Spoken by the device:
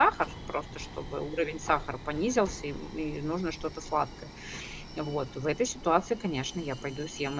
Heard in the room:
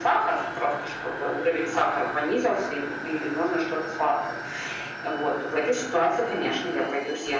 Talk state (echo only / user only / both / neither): echo only